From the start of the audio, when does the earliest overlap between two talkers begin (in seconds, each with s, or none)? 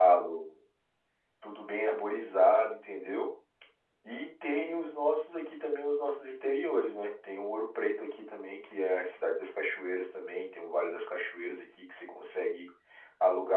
none